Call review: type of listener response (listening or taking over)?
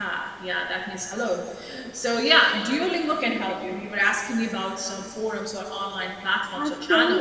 taking over